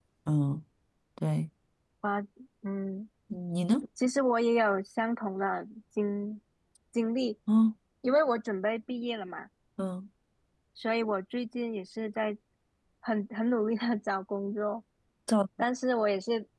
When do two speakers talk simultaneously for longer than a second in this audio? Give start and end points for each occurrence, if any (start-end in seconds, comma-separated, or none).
none